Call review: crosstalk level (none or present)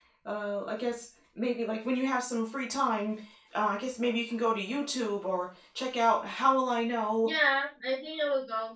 none